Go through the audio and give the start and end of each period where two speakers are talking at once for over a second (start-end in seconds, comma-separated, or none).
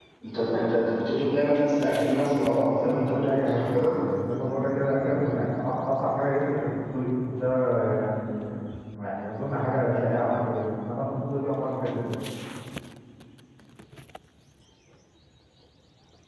1.9-4.0